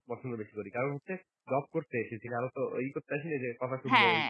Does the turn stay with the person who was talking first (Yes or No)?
No